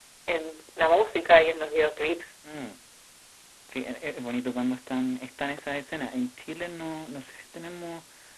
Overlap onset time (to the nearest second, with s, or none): none